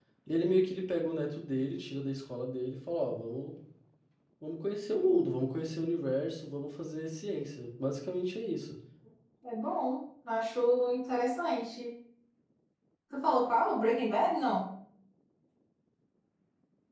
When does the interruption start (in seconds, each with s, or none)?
none